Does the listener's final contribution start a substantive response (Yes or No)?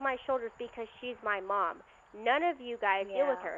No